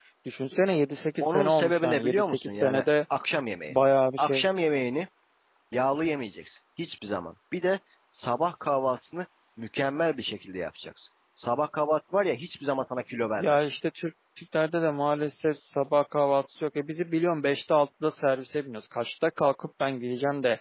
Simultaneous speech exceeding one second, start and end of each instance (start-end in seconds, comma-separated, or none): 1.2-2.8